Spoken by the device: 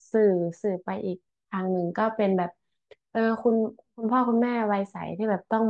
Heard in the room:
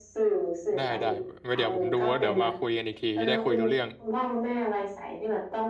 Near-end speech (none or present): present